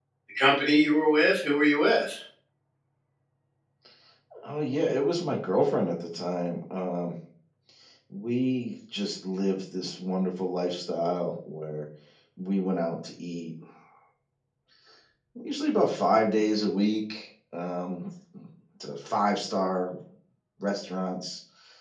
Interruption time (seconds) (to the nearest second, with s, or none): none